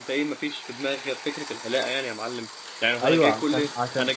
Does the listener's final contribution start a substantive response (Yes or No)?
Yes